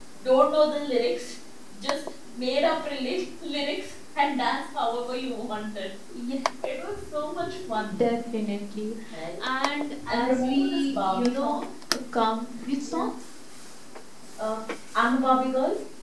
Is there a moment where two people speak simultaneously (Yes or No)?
Yes